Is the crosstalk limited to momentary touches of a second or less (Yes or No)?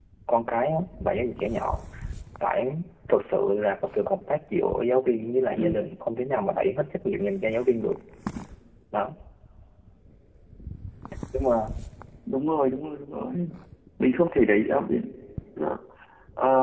Yes